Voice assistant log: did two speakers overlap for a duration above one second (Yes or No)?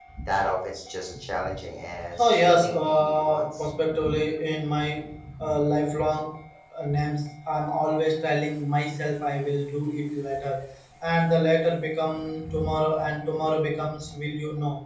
Yes